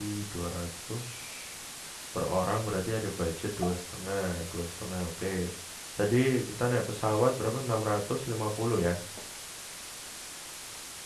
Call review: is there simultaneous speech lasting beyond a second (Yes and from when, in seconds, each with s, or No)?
No